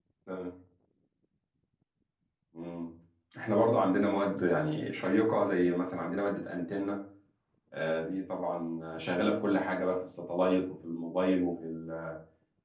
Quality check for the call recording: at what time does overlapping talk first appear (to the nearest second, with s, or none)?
none